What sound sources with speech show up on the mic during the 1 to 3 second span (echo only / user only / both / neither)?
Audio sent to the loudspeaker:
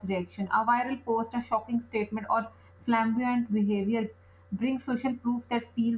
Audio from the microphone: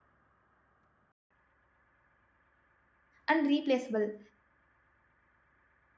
neither